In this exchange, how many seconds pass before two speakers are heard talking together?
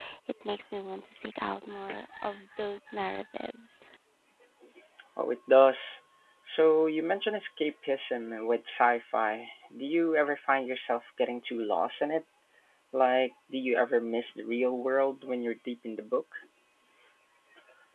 none

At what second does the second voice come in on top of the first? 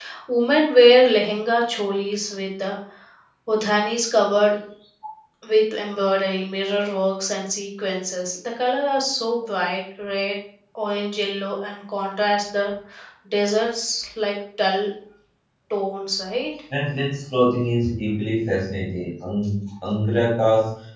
none

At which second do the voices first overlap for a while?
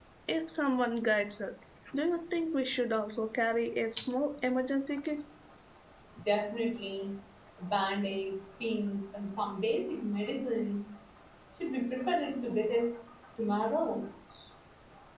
none

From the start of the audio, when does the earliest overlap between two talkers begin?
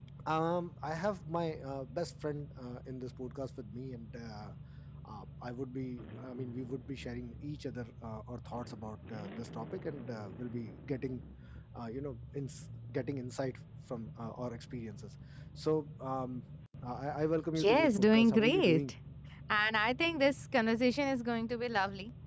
17.6 s

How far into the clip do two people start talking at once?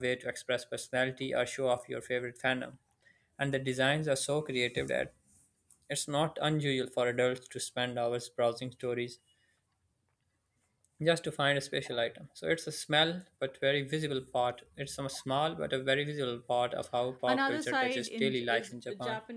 17.3 s

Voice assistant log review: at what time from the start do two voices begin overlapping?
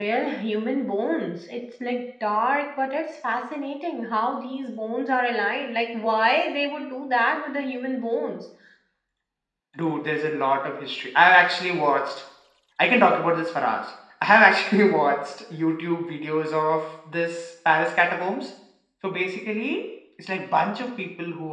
none

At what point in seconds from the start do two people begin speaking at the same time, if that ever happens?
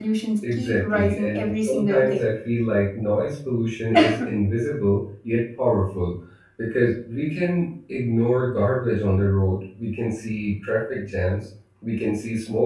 0.5 s

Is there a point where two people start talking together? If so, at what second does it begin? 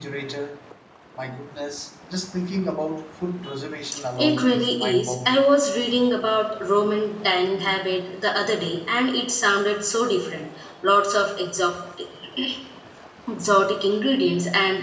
4.2 s

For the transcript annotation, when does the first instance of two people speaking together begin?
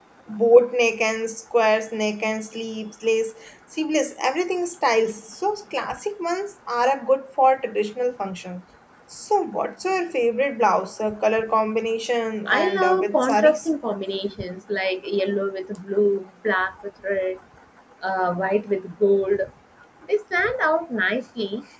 12.4 s

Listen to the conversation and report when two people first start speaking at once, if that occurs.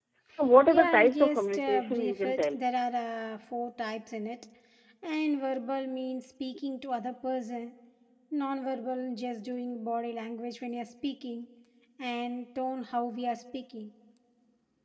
0.7 s

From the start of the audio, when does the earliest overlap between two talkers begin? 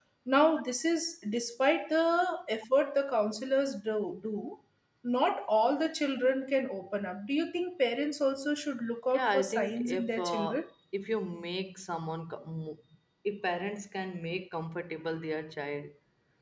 9.1 s

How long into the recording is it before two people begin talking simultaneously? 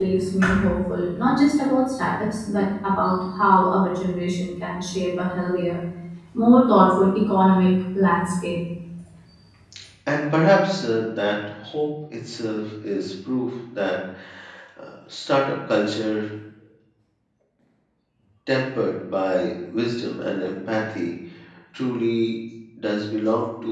none

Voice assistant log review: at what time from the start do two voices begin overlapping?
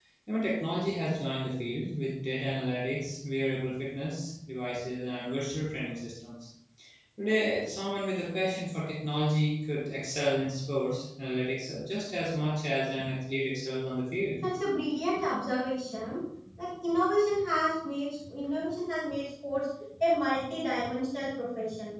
none

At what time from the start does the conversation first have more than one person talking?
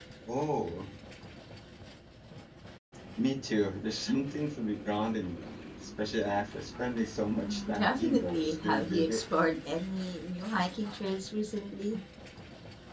7.4 s

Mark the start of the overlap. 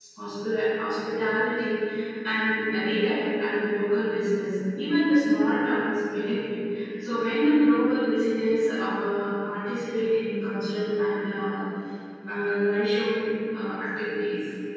none

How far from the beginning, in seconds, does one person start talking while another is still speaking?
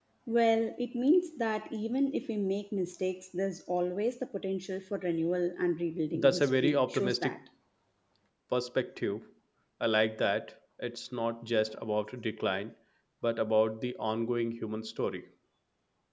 6.1 s

